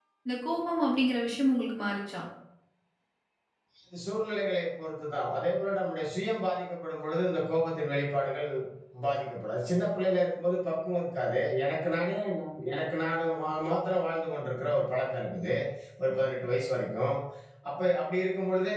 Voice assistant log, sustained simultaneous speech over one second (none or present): none